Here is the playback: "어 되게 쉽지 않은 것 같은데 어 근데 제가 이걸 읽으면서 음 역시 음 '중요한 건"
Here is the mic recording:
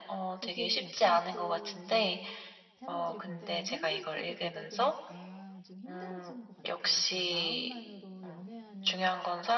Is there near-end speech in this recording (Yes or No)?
Yes